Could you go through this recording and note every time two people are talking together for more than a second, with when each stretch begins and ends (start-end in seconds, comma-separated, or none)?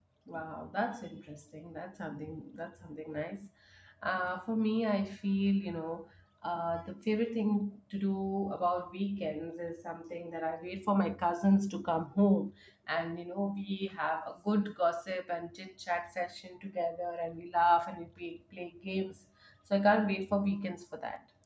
none